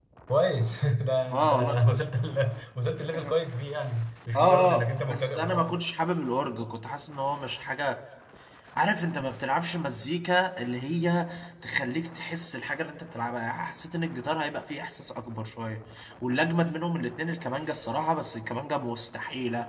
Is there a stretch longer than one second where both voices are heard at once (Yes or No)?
Yes